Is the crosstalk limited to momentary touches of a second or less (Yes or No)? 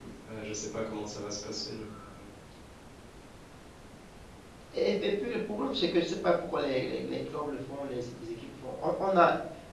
Yes